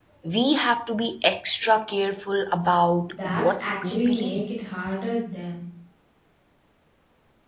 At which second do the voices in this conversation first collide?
3.1 s

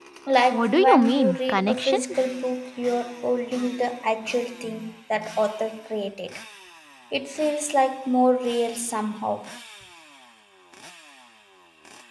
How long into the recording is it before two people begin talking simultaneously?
0.5 s

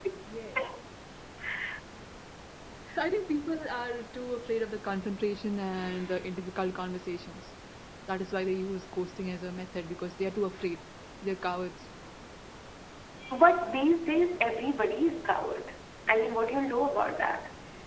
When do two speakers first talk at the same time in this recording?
none

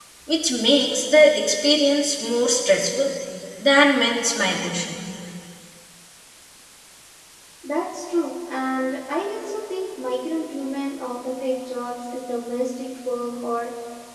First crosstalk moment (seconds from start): none

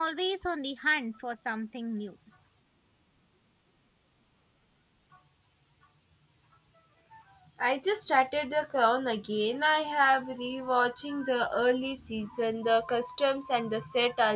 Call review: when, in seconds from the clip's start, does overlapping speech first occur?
none

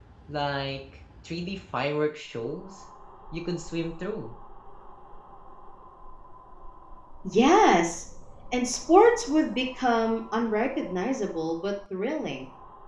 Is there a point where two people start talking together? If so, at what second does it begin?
none

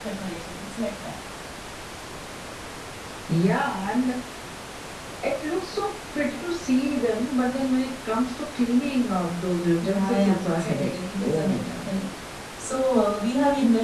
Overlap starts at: 9.8 s

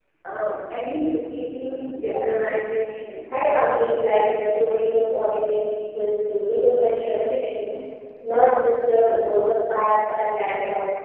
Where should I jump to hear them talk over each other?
none

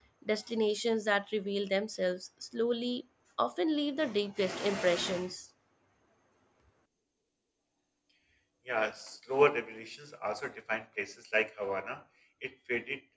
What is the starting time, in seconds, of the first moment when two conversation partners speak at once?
none

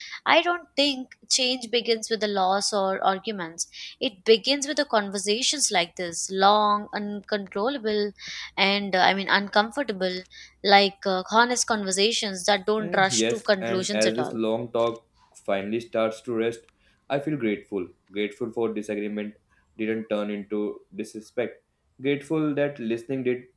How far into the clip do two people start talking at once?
12.8 s

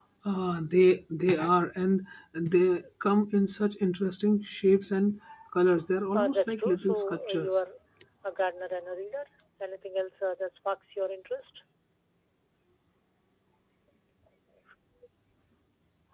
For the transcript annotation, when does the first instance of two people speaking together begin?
6.1 s

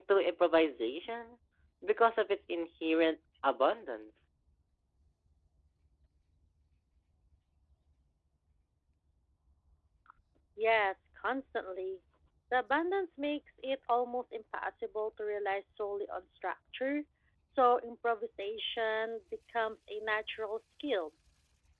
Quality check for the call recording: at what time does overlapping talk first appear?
none

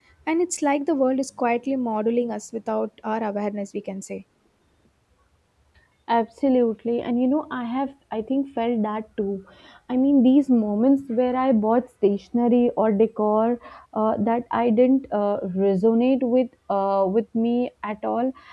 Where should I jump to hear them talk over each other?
none

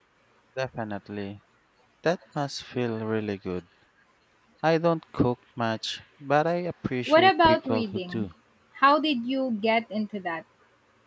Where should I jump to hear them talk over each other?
7.1 s

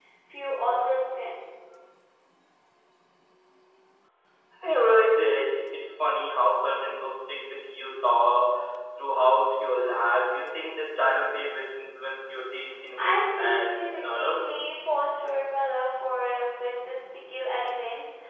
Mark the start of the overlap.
13.0 s

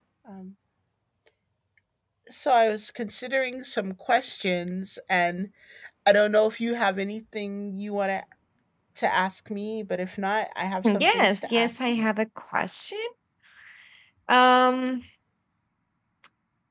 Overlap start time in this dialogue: 10.8 s

